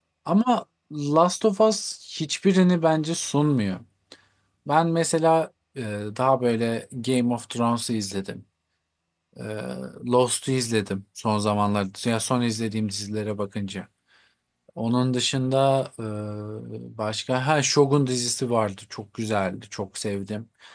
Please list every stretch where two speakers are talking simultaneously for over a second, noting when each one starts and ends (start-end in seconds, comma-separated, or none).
none